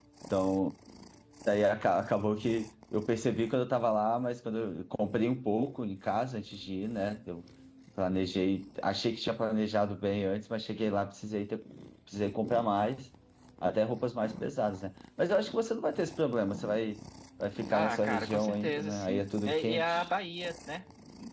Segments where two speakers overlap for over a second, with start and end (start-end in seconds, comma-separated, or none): 17.7-20.1